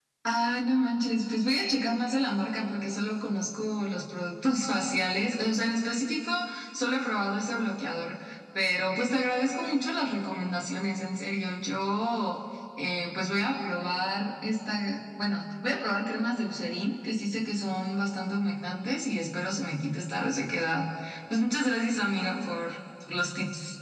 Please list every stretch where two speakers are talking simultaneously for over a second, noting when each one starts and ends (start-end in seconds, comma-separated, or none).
none